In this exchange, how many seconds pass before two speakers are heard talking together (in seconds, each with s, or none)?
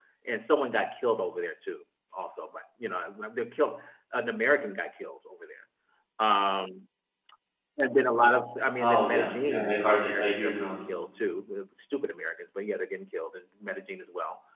8.8 s